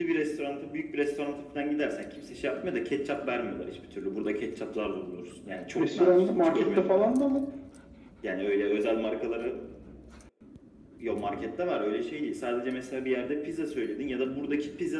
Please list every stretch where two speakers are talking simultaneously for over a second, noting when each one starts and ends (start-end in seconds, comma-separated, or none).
5.8-7.0